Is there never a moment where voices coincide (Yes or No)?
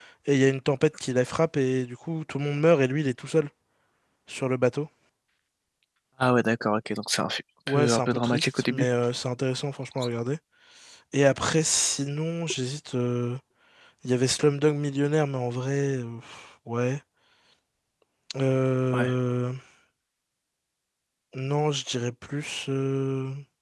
No